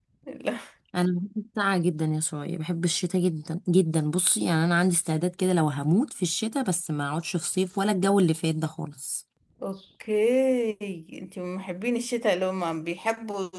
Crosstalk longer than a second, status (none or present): none